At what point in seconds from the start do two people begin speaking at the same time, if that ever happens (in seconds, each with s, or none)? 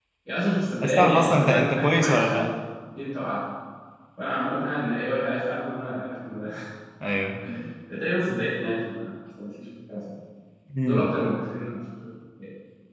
0.8 s